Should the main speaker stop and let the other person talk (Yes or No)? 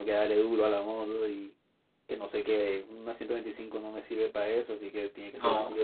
No